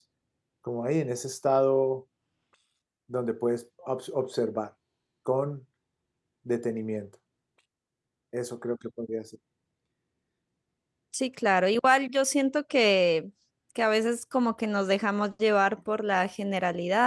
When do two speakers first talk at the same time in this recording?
none

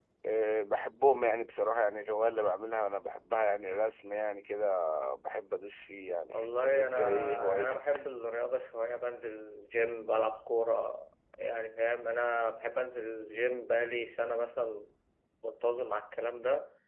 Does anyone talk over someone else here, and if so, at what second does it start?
6.3 s

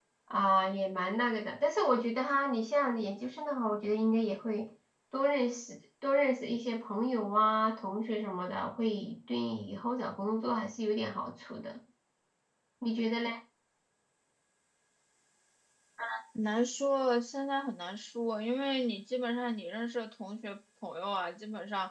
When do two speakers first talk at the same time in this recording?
none

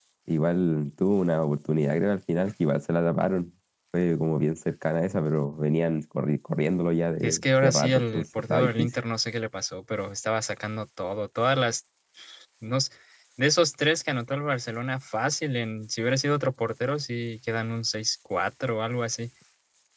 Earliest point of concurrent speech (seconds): 7.2 s

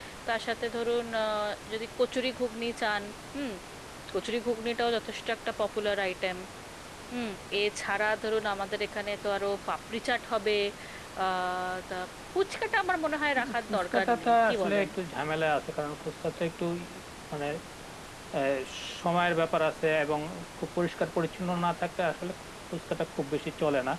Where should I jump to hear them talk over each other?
13.6 s

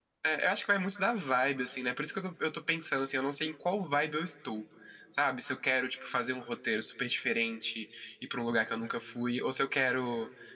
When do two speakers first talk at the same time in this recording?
none

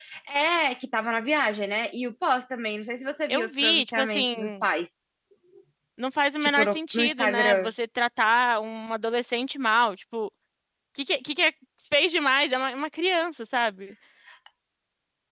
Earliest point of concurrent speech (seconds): 3.3 s

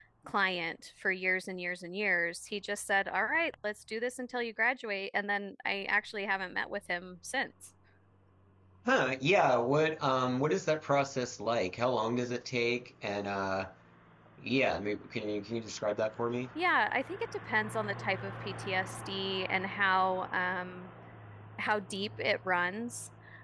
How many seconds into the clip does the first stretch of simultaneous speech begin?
none

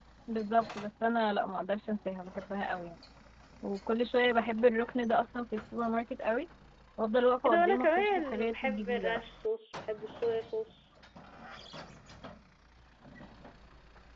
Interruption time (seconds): 7.5 s

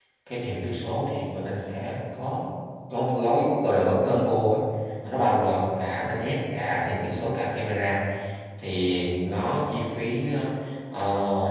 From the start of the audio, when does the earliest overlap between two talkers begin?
none

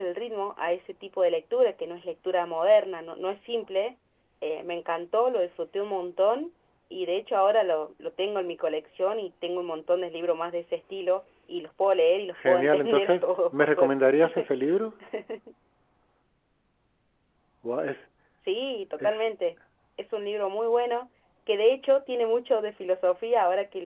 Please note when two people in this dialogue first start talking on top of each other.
12.4 s

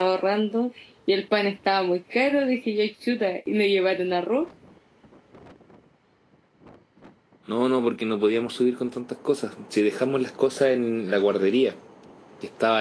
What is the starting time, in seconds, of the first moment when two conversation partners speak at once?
none

